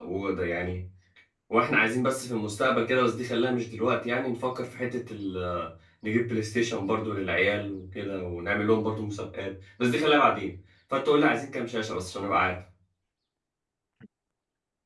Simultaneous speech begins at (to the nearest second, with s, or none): none